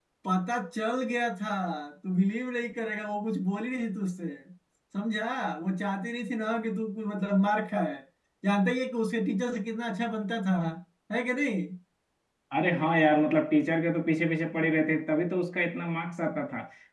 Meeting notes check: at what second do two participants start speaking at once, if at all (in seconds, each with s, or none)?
none